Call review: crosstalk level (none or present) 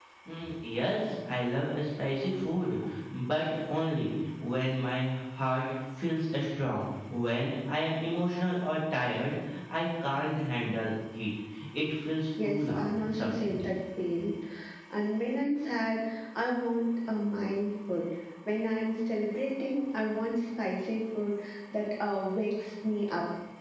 present